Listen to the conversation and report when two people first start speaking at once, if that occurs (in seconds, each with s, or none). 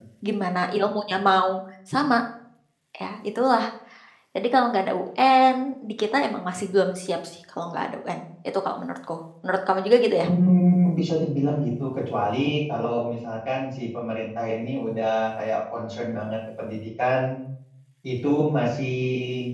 none